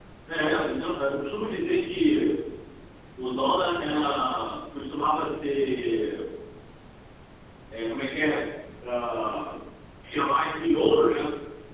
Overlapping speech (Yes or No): No